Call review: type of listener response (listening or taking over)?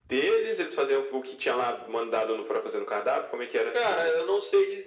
taking over